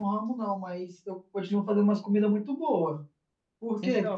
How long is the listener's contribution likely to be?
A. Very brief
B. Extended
B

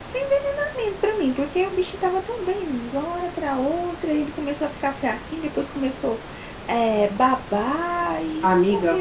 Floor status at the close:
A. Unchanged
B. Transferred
B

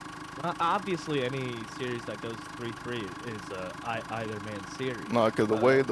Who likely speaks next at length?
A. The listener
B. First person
A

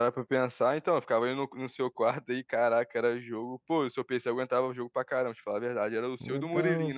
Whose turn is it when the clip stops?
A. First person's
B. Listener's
B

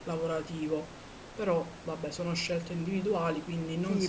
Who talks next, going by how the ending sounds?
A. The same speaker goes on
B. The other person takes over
B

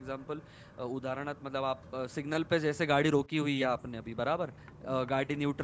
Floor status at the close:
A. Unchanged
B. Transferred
A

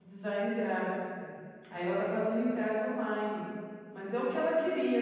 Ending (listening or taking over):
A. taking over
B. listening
B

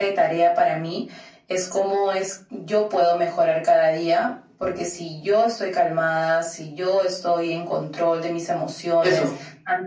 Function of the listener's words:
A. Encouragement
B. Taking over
A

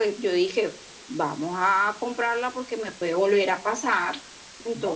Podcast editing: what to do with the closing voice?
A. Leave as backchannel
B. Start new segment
B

